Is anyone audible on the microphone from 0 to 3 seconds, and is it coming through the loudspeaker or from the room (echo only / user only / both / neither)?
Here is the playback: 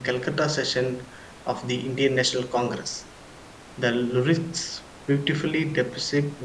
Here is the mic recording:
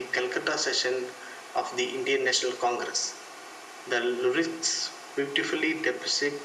echo only